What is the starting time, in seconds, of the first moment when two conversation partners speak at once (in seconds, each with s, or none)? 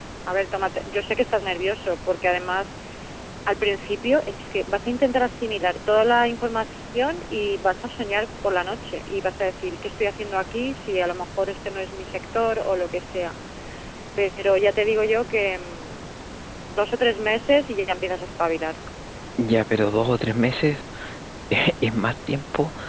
none